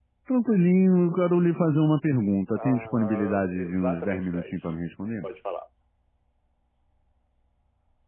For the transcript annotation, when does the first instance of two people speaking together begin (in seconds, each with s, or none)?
2.5 s